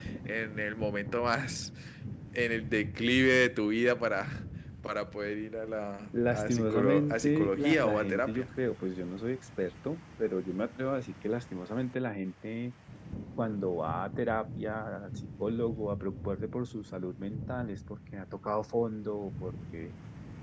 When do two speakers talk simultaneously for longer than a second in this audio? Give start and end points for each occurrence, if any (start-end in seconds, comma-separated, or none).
6.3-8.5